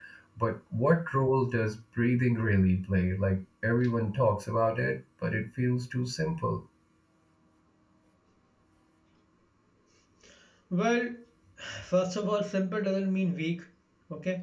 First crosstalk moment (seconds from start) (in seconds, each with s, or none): none